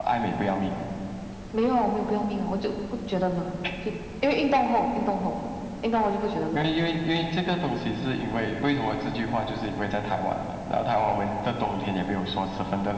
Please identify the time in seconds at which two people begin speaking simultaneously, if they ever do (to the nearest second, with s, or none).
none